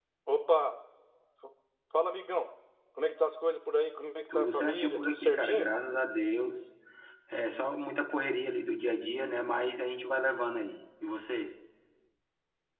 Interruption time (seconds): 4.3 s

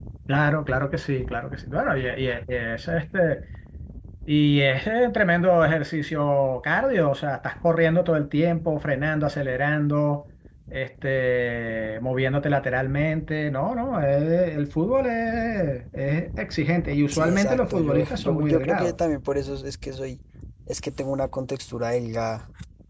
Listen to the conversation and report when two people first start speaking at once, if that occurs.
17.1 s

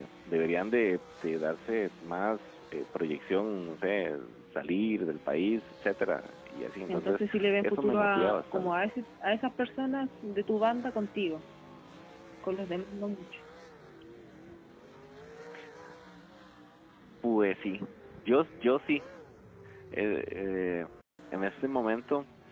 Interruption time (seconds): 6.9 s

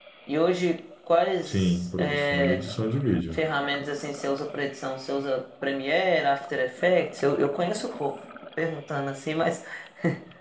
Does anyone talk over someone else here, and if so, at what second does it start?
1.4 s

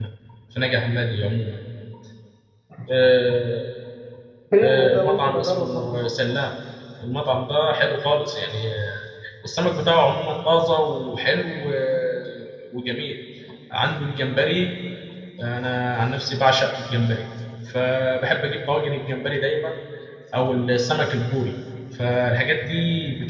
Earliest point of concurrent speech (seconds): 4.6 s

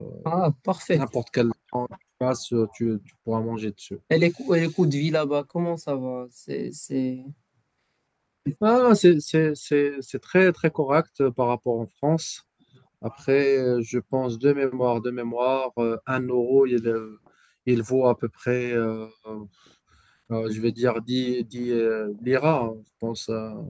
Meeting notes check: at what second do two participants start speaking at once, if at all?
none

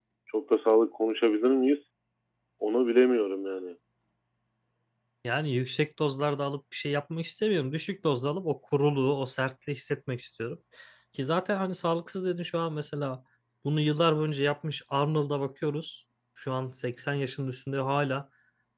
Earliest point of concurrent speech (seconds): none

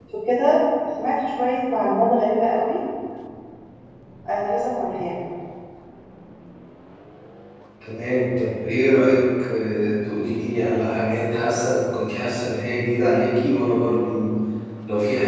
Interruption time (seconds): none

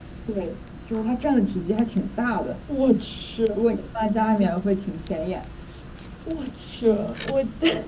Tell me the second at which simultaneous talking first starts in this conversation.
none

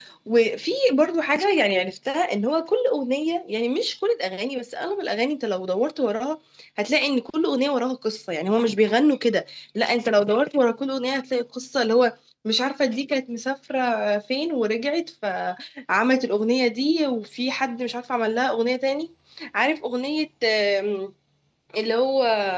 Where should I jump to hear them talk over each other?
none

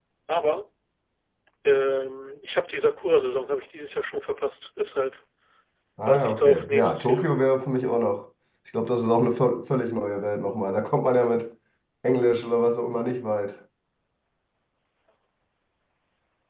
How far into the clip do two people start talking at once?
6.0 s

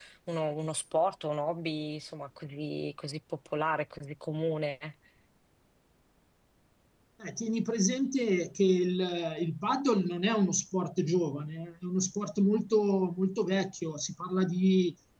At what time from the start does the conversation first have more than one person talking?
none

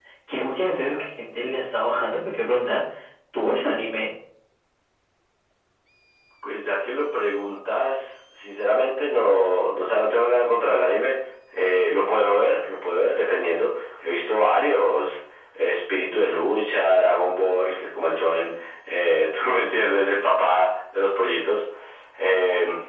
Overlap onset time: none

